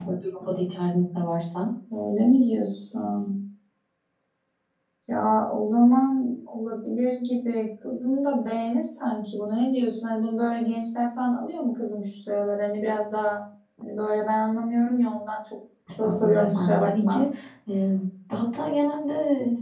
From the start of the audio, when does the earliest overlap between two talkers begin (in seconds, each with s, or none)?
15.9 s